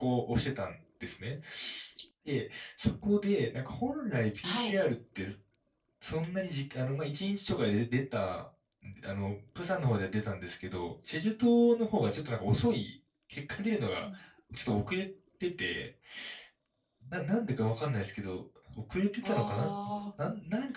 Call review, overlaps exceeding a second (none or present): none